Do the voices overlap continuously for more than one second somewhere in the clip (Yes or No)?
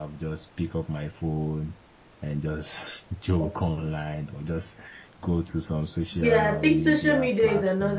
Yes